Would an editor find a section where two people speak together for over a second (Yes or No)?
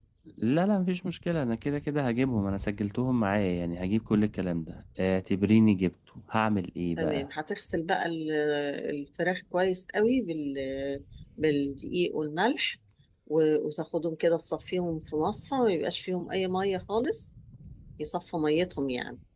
No